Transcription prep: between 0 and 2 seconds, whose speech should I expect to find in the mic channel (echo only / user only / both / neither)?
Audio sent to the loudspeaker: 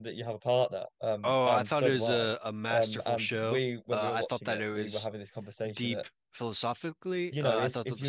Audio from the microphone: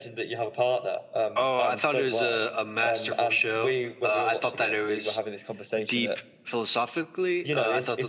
echo only